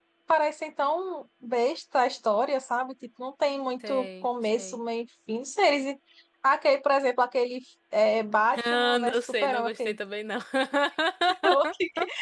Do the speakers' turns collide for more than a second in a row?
Yes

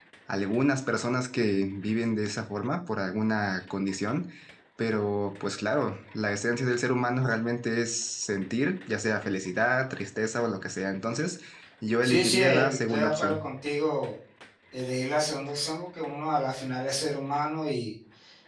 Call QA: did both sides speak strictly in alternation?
No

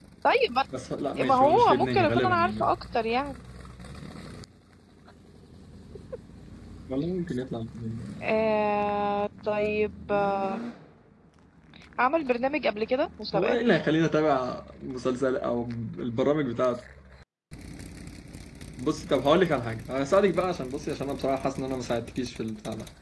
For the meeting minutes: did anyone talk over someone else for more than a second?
Yes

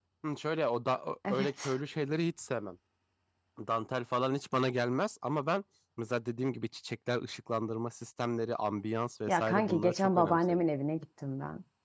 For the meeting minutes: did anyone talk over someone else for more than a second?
Yes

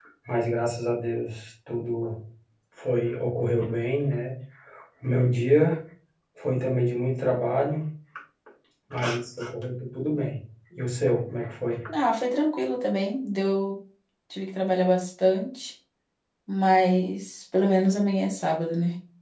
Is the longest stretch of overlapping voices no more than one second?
Yes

